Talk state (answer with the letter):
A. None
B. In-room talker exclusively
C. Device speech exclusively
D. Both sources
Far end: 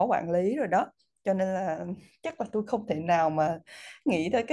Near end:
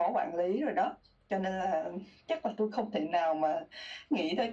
C